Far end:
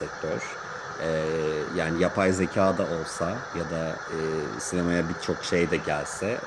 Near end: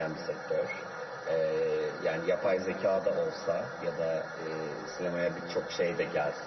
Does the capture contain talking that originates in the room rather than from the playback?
No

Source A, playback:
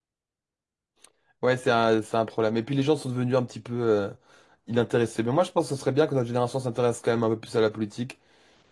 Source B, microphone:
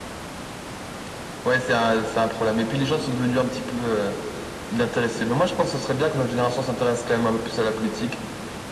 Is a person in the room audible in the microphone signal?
No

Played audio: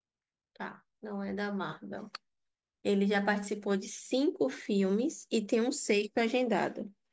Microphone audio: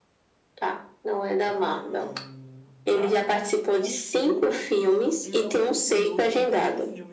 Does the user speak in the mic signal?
Yes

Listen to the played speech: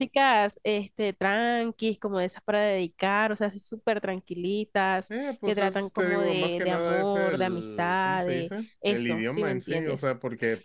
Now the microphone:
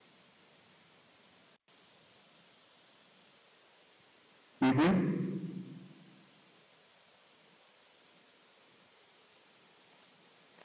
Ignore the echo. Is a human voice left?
Yes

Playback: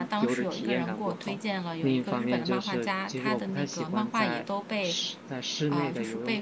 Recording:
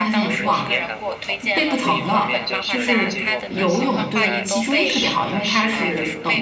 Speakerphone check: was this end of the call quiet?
No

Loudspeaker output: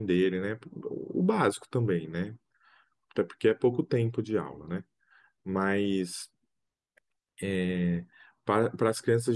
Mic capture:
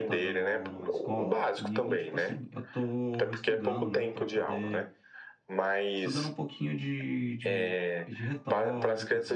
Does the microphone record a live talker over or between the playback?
Yes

